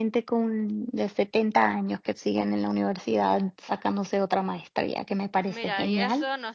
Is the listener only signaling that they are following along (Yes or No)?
No